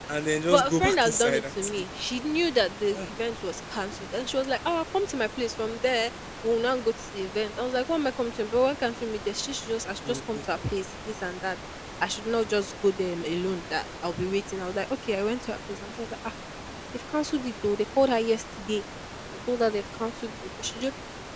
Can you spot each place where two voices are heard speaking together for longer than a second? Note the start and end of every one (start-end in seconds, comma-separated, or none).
0.5-1.7